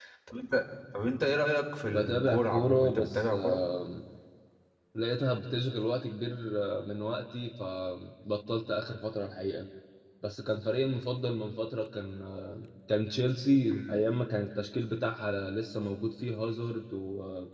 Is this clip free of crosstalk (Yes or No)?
No